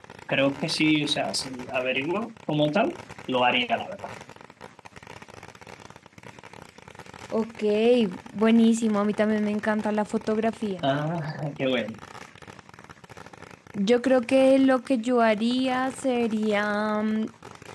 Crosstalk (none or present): none